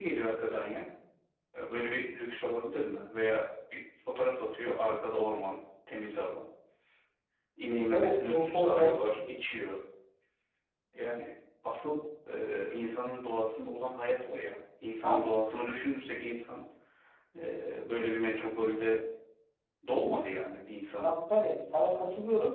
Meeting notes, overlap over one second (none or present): present